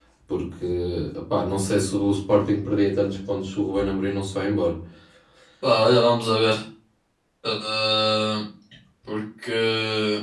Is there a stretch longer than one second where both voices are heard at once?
No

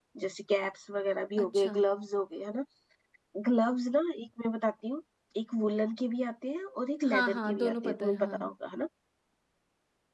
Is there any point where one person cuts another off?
Yes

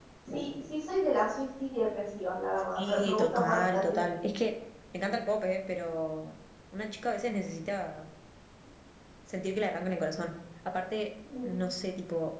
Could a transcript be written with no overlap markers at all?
No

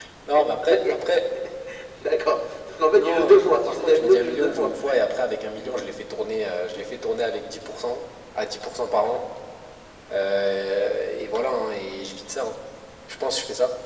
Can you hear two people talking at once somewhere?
Yes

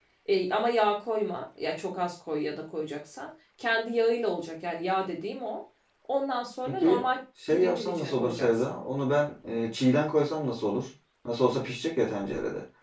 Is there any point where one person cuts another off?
Yes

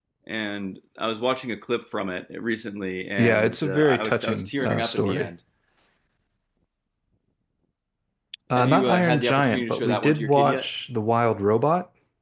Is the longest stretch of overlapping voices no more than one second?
No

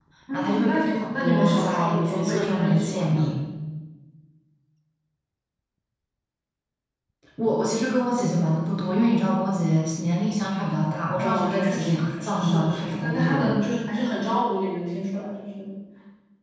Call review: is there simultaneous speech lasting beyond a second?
Yes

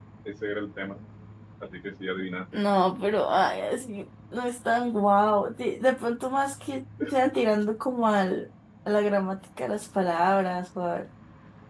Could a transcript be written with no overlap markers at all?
Yes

